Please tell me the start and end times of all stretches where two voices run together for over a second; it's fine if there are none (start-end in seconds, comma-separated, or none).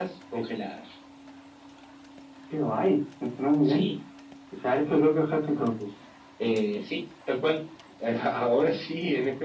none